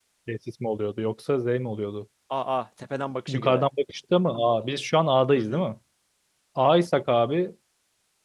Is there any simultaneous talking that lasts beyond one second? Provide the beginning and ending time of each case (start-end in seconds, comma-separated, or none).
none